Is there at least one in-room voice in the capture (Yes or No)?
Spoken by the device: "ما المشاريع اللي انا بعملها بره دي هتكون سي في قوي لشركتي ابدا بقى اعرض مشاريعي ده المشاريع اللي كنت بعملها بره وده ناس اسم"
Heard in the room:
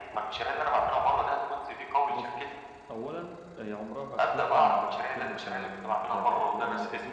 Yes